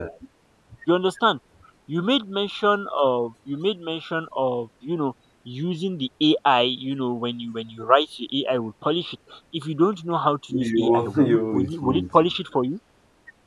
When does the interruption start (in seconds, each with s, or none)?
10.5 s